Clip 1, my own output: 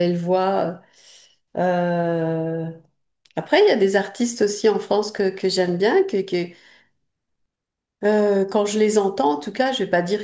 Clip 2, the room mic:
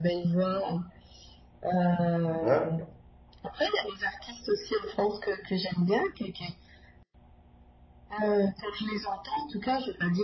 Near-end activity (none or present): present